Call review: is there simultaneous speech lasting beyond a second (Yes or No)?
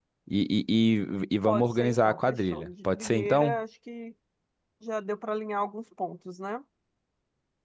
Yes